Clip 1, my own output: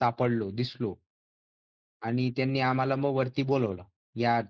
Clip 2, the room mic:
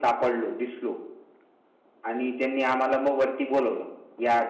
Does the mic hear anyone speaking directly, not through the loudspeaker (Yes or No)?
No